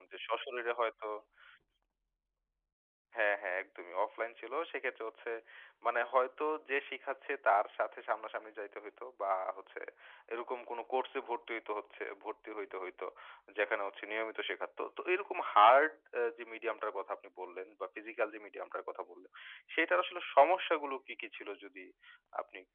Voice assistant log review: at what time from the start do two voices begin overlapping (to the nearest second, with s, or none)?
none